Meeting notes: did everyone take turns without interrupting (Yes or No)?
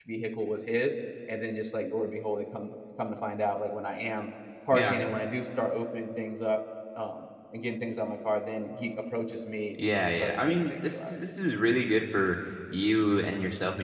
No